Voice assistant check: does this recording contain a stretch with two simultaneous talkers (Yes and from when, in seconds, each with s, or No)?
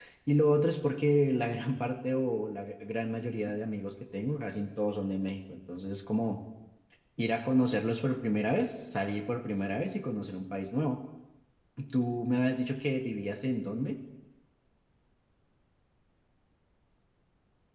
No